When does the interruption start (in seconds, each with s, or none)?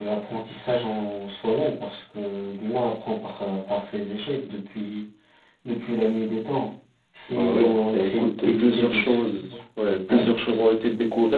7.3 s